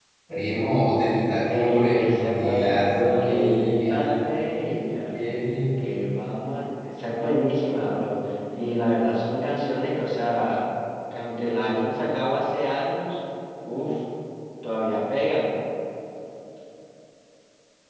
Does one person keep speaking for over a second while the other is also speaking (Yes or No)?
Yes